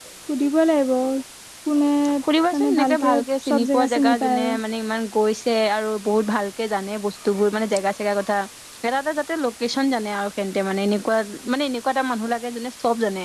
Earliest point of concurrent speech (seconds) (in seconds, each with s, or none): 2.5 s